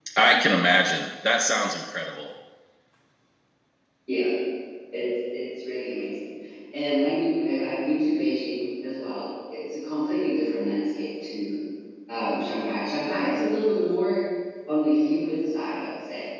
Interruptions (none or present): none